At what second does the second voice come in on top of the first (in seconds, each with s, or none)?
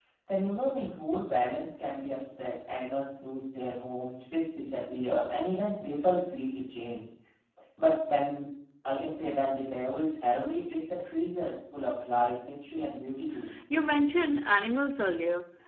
none